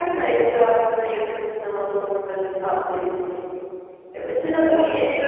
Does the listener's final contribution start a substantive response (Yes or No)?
No